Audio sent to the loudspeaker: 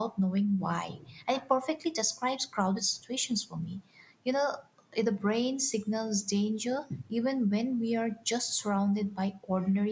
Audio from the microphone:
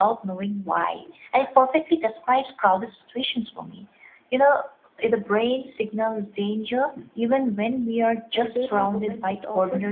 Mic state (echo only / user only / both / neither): both